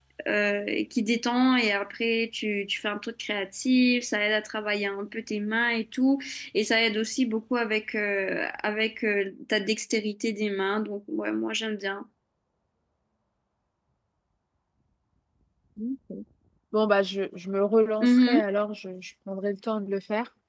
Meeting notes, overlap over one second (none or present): none